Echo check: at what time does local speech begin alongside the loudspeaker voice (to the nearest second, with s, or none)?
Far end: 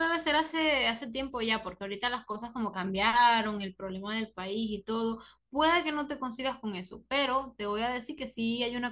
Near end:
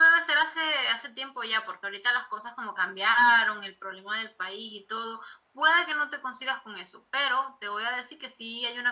none